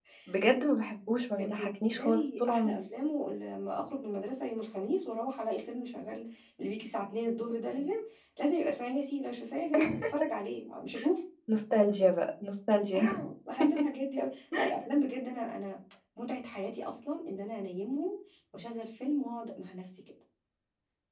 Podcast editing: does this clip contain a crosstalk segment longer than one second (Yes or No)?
Yes